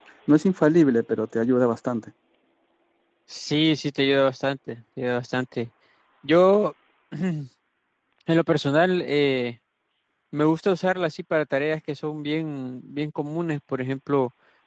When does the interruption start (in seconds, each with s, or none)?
none